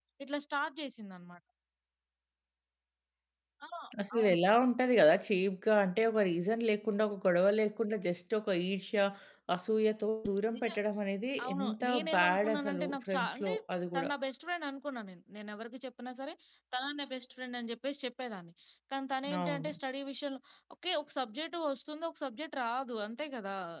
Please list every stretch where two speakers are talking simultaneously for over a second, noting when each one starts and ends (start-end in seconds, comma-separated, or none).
11.4-13.5